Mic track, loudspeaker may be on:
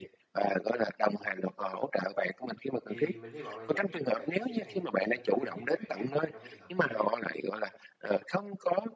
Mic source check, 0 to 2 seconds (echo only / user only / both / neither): echo only